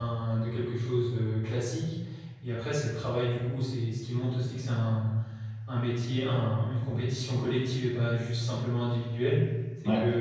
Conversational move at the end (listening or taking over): listening